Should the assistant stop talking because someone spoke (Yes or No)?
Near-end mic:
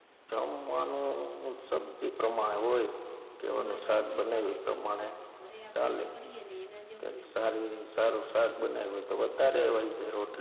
Yes